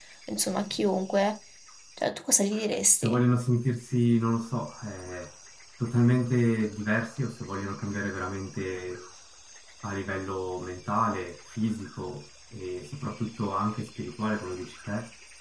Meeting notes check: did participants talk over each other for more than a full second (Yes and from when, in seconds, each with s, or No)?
No